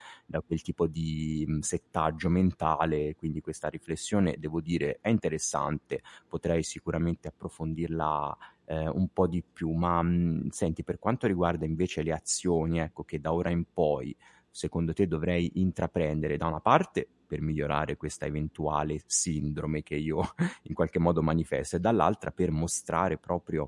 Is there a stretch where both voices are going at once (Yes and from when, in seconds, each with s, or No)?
No